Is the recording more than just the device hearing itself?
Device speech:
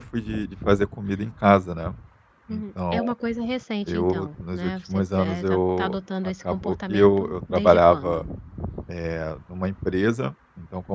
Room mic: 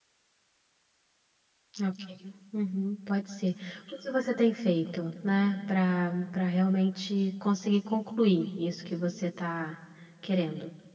Yes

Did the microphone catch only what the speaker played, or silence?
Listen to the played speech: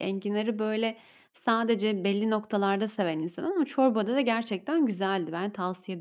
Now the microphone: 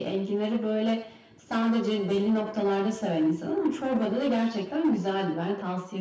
Yes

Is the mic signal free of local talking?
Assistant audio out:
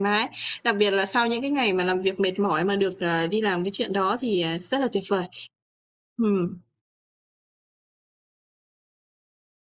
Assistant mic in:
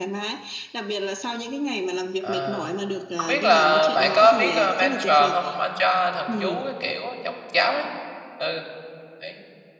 No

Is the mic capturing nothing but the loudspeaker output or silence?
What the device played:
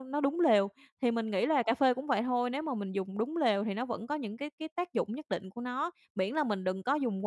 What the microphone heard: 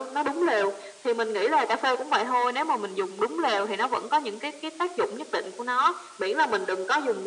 Yes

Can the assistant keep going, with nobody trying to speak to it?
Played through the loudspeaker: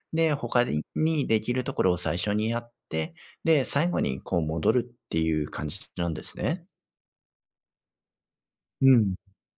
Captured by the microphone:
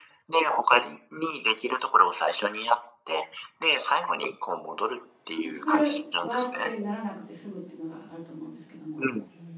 No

